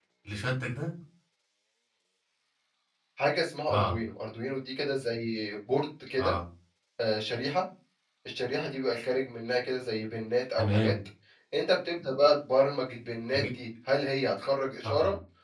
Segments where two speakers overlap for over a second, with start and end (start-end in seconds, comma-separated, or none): none